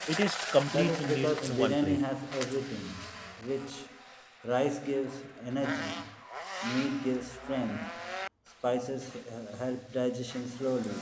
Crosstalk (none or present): present